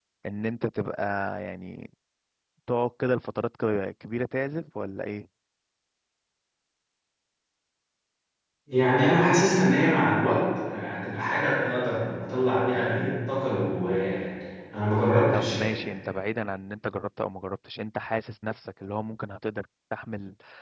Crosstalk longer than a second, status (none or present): none